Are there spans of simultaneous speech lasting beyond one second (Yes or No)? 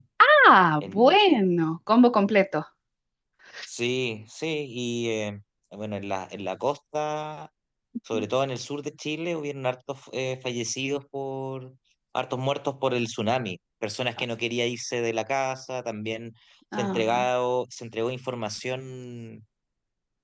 No